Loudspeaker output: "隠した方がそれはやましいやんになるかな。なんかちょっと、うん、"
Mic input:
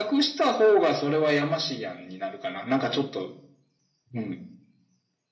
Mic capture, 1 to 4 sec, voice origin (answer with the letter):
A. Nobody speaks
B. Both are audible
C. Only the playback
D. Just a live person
C